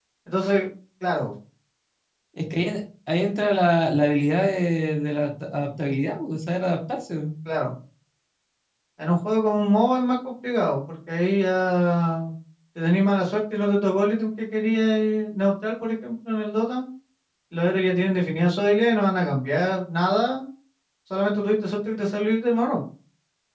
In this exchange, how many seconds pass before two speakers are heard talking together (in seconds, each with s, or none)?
none